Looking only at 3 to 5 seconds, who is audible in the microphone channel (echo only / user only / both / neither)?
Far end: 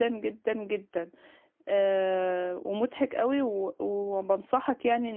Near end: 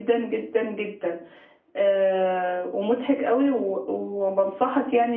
echo only